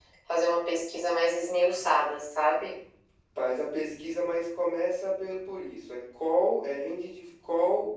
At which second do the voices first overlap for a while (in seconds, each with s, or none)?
none